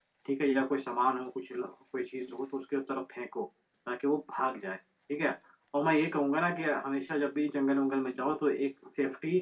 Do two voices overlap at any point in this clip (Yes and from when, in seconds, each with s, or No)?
No